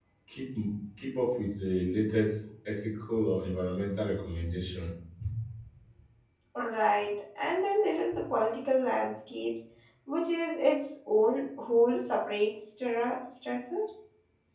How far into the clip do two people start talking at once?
none

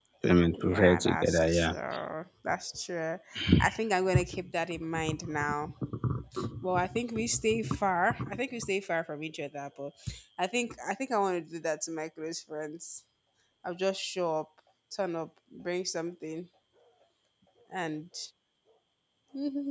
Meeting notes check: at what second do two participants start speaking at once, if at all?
1 s

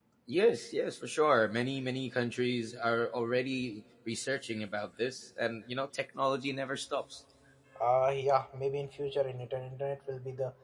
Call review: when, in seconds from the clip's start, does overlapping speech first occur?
none

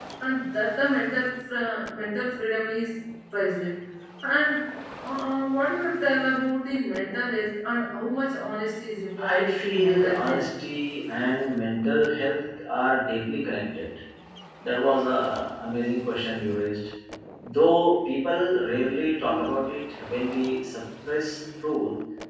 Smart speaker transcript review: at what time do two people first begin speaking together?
9 s

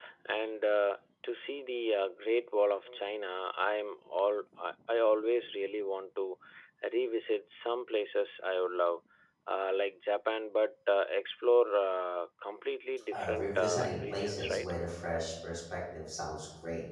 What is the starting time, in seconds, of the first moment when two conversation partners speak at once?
13 s

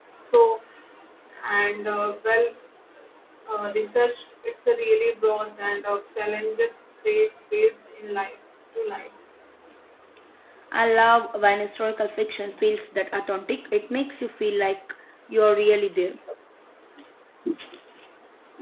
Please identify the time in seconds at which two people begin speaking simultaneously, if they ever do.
none

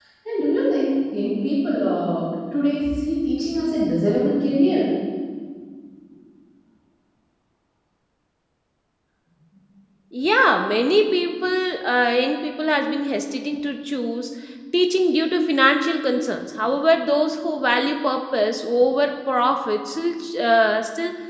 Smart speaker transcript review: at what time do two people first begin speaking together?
none

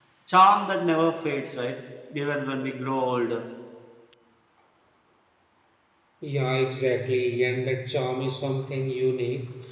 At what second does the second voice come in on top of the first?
none

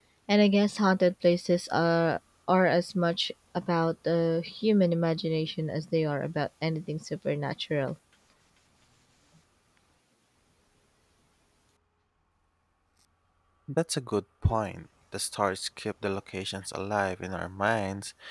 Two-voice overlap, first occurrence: none

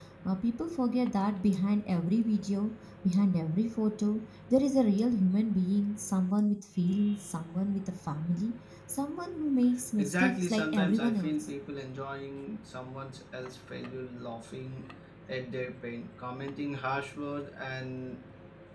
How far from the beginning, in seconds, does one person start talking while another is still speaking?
10 s

